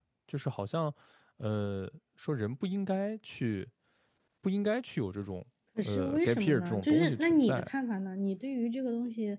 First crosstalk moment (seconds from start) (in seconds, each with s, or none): 5.8 s